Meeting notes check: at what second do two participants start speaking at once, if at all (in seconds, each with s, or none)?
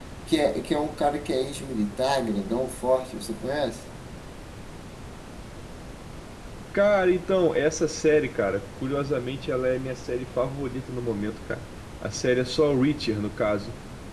none